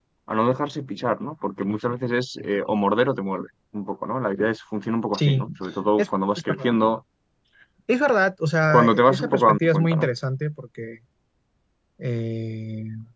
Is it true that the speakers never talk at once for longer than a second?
No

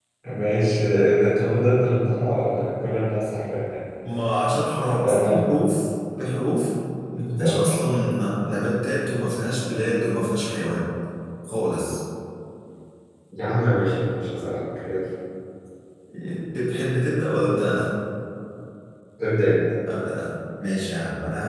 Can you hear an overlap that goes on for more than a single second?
No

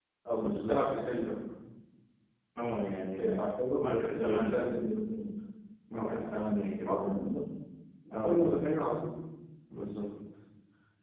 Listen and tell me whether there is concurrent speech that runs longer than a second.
Yes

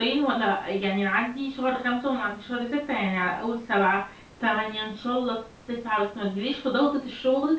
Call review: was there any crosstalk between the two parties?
No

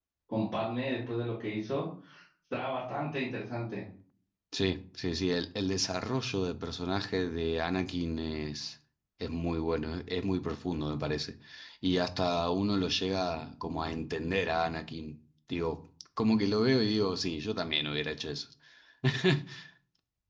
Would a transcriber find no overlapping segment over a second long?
Yes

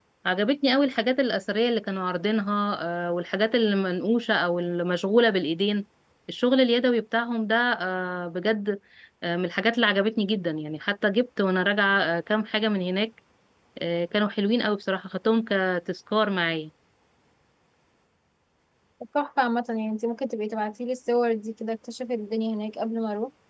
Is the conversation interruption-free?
Yes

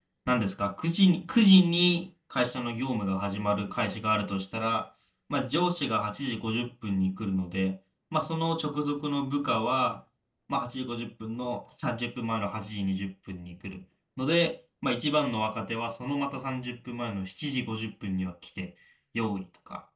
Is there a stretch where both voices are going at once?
No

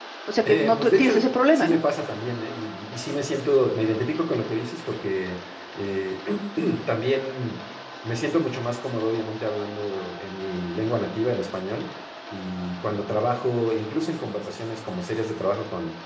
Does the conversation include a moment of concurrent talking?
Yes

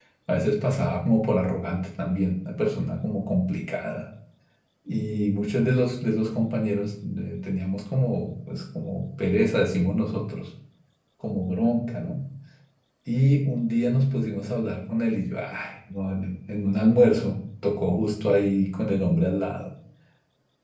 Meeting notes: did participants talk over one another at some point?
No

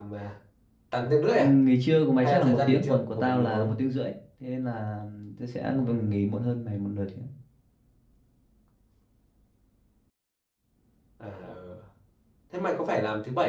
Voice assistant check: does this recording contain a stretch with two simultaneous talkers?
Yes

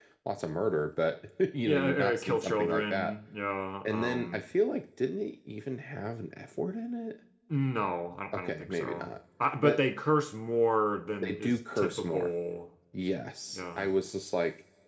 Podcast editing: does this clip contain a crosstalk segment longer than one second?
Yes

